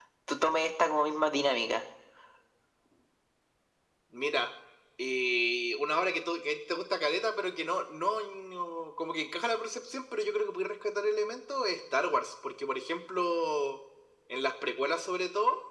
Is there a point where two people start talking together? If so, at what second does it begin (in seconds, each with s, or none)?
none